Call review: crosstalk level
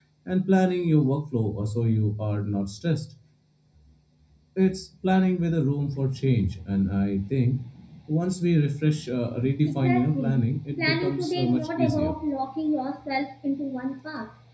present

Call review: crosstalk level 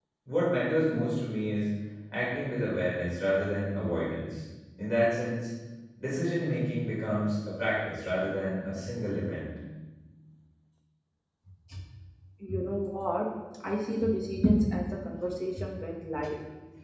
none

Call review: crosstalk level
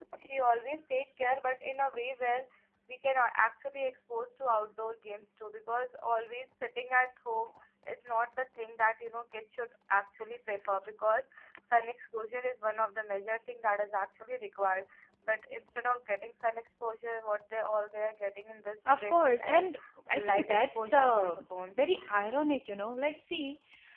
present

